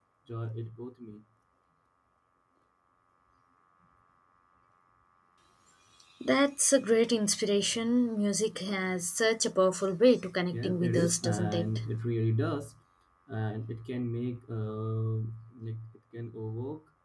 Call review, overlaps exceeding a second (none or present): present